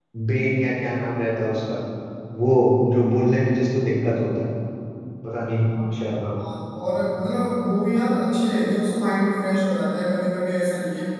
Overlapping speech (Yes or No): No